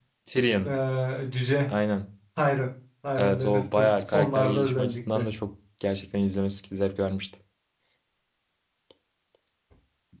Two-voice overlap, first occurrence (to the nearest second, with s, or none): 3 s